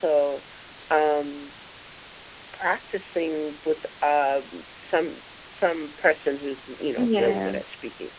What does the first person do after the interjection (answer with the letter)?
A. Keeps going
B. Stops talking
A